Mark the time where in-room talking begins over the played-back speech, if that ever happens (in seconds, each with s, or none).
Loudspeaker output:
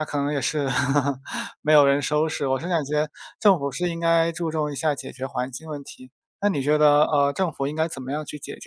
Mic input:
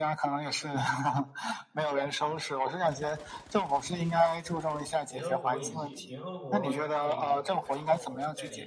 5.1 s